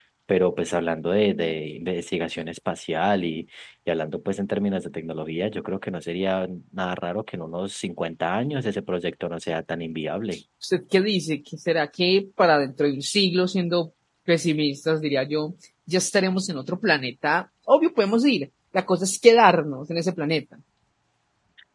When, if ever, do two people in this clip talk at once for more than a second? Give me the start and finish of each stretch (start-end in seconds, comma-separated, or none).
none